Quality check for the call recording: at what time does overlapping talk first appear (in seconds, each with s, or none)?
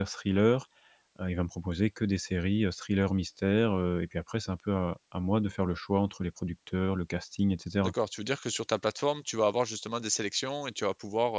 none